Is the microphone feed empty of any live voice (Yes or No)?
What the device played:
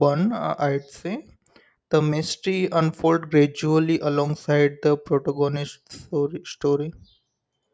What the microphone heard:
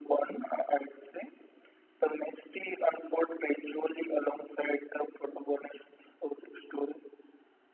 Yes